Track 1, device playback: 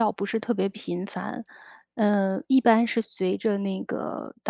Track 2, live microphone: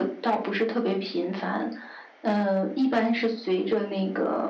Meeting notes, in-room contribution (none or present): none